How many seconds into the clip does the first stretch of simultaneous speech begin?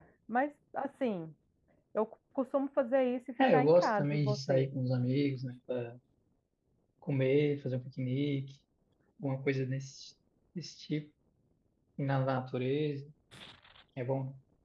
3.4 s

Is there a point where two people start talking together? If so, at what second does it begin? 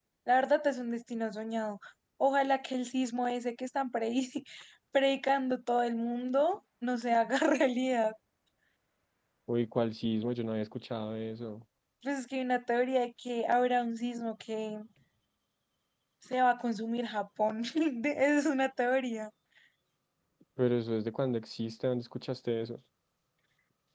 none

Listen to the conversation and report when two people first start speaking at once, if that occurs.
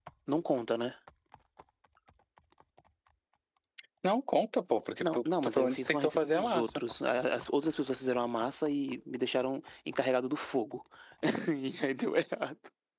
5.0 s

